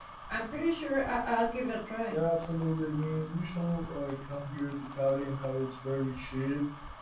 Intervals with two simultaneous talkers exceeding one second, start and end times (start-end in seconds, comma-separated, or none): none